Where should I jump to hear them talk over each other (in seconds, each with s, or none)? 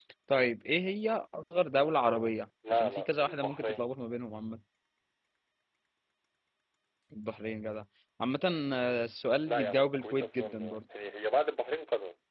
2.7 s